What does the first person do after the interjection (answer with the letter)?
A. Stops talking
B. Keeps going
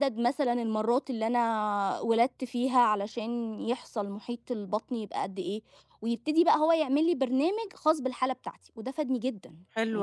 A